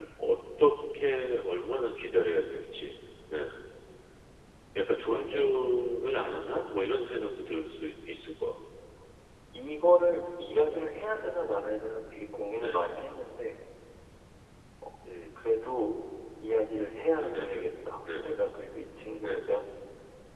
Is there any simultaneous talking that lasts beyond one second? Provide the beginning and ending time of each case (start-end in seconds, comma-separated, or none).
none